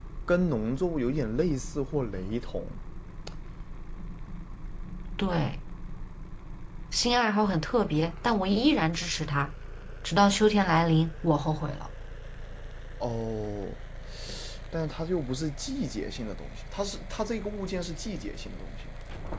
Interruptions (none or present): none